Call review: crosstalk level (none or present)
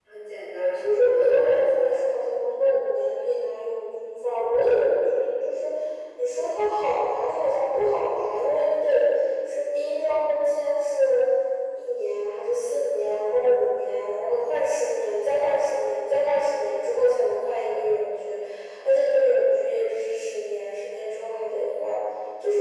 present